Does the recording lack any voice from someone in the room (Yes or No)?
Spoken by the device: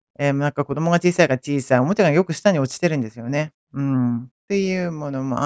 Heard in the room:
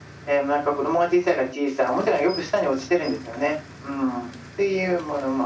Yes